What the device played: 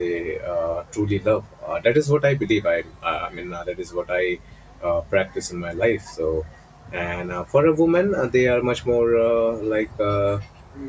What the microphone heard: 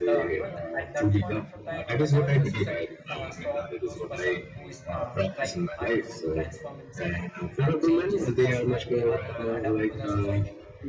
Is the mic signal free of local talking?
No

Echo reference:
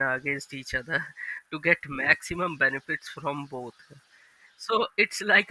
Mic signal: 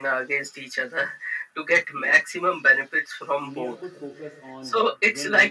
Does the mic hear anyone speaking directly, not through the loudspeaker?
Yes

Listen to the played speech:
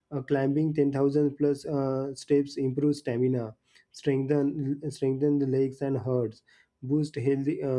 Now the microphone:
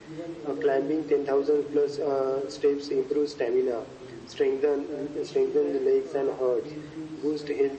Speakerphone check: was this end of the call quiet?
No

